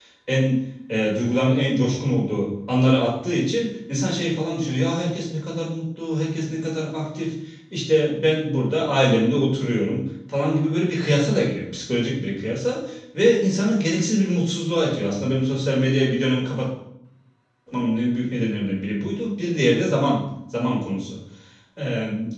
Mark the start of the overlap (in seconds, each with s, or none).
none